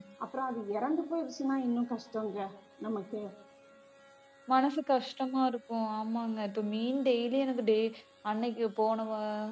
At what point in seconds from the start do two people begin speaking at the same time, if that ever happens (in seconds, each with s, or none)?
none